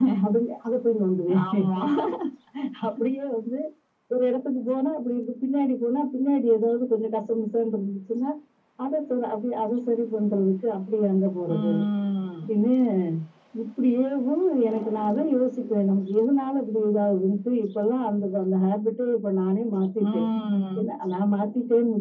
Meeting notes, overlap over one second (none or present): none